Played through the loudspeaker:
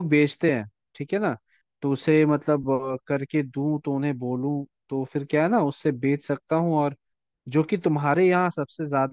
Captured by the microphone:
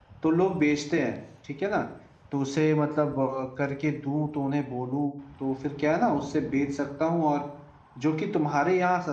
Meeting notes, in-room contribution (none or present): none